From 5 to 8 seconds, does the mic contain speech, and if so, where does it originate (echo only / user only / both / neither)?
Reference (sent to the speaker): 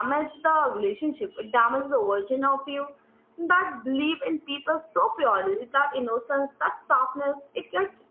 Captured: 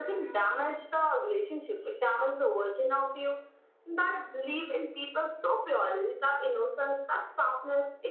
echo only